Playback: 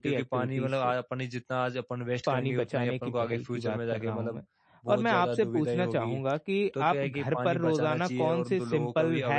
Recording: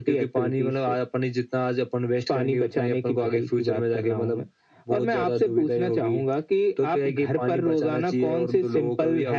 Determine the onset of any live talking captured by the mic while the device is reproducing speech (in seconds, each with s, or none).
none